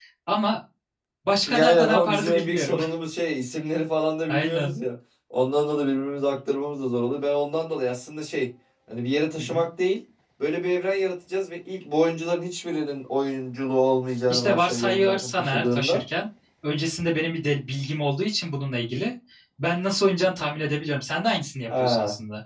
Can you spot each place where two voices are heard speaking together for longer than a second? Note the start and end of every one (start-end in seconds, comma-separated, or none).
1.5-2.8, 14.3-16.0